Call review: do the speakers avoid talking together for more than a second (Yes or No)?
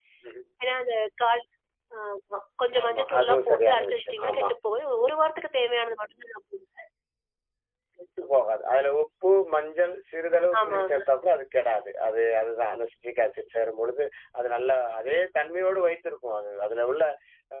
No